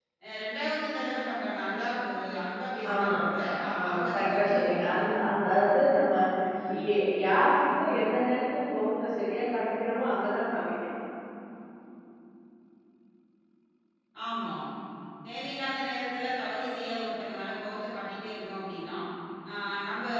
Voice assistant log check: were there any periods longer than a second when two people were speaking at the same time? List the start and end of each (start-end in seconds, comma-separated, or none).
3.8-5.0